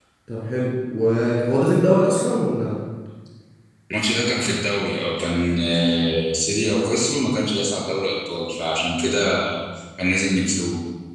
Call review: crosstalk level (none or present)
none